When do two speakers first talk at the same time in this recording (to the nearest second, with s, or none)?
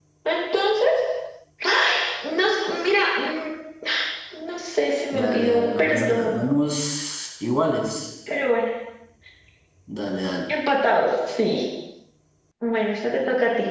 5 s